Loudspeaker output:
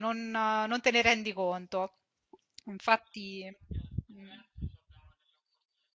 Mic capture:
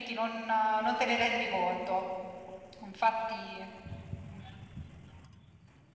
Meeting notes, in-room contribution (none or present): none